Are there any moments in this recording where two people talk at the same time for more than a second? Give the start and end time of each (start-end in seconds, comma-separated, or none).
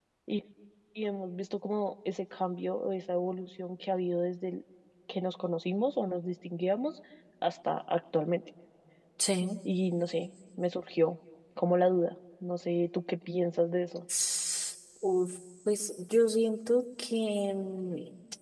none